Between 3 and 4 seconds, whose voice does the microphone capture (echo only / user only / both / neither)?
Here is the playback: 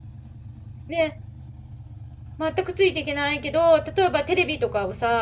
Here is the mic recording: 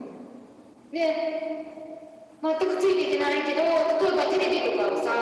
echo only